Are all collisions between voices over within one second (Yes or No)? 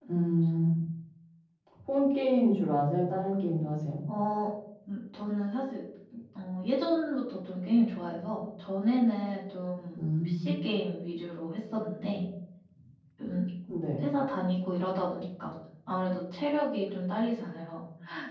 Yes